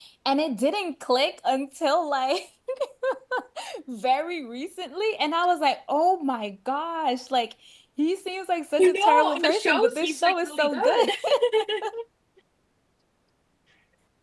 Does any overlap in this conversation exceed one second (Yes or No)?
Yes